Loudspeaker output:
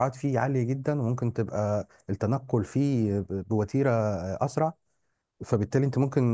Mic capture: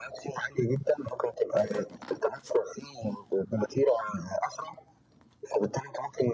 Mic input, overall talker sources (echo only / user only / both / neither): echo only